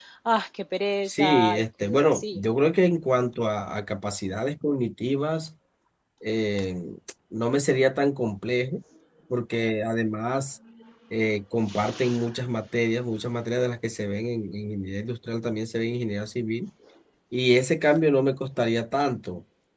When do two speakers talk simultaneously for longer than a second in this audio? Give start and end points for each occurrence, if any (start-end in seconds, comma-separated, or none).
1.1-2.4